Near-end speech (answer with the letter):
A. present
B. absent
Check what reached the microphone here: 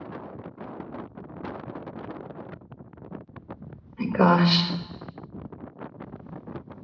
A